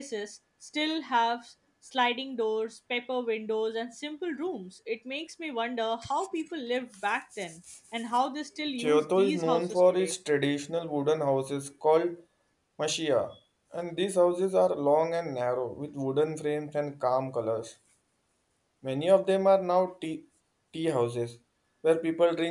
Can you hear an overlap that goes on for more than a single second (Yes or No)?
Yes